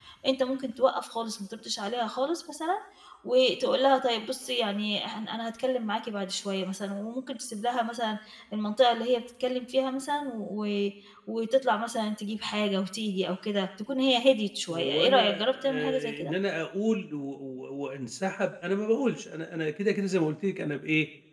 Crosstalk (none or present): present